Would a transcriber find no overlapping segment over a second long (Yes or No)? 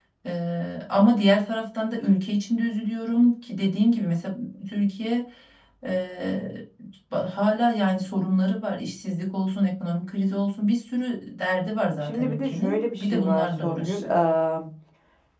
No